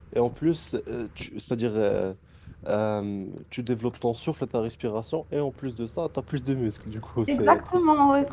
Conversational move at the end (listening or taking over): taking over